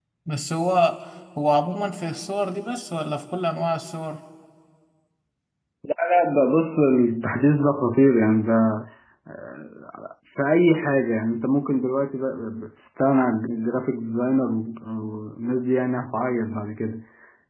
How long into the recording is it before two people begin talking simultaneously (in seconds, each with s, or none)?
none